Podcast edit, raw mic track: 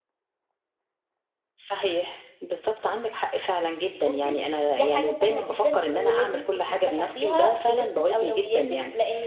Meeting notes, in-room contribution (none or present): present